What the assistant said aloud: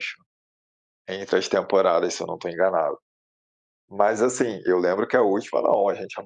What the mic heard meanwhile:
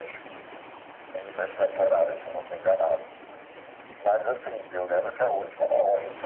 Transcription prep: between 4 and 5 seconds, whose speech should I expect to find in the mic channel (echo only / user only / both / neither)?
echo only